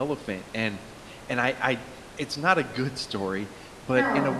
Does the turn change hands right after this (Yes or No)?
No